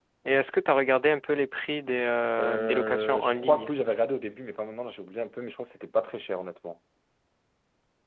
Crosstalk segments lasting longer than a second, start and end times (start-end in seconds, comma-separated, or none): 2.4-3.7